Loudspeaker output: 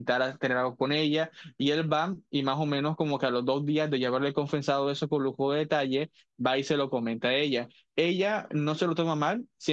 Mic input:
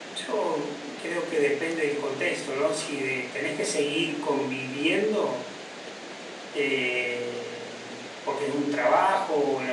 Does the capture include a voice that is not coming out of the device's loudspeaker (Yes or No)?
Yes